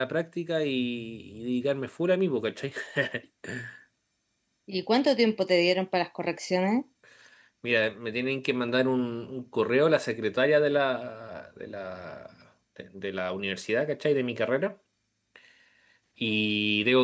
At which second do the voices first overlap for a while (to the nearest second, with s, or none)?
none